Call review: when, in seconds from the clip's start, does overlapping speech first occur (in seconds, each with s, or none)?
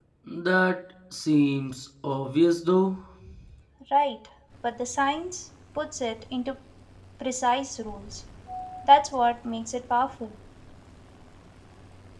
none